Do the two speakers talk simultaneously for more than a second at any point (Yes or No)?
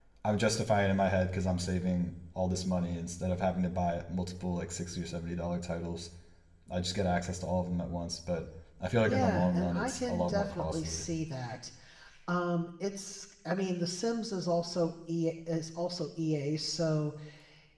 Yes